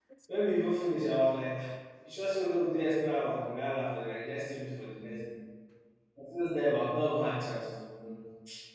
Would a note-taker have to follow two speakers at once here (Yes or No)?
No